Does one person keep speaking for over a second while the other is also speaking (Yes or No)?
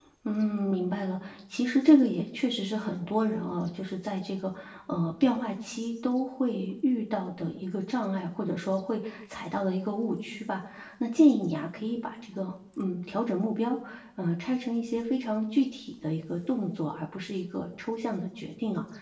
No